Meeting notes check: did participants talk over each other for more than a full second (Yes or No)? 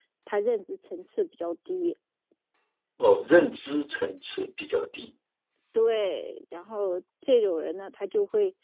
No